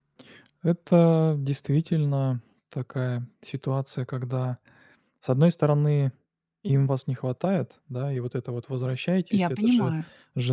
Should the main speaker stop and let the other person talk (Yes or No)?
No